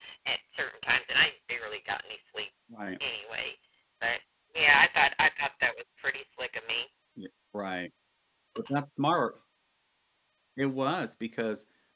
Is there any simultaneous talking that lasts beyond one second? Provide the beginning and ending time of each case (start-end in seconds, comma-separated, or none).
none